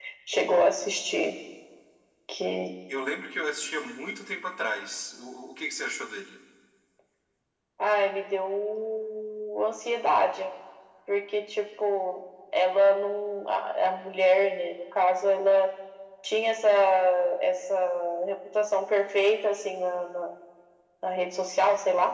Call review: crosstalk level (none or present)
none